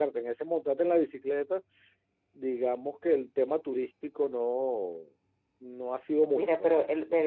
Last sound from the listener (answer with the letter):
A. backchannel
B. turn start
B